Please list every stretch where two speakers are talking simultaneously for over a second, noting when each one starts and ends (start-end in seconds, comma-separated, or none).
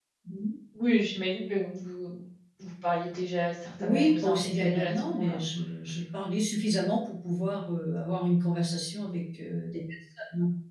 3.8-5.4